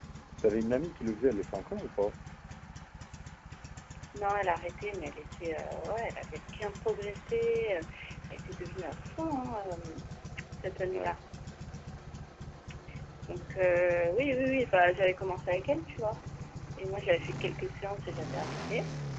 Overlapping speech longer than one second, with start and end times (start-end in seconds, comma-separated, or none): none